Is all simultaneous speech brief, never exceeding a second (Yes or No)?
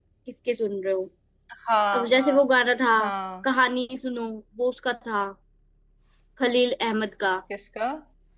Yes